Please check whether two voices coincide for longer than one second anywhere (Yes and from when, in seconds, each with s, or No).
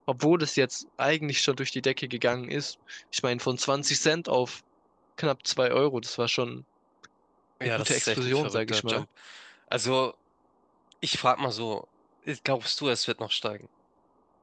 Yes, from 7.8 s